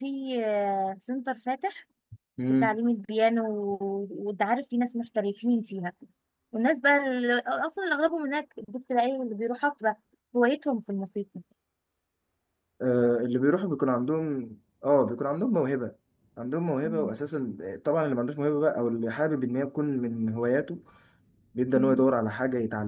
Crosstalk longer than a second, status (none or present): none